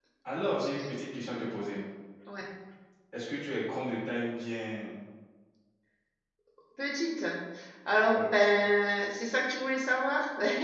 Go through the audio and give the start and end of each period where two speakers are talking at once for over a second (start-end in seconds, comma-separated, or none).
none